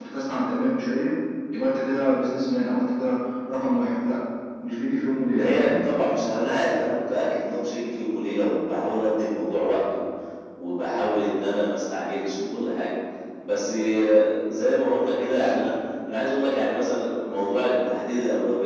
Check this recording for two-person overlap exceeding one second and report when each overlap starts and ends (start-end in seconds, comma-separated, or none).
none